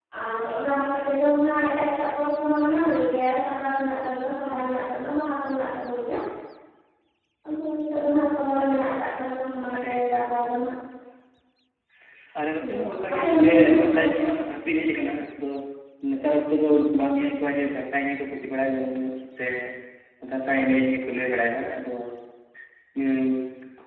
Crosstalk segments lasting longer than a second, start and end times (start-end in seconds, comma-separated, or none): 12.6-14.2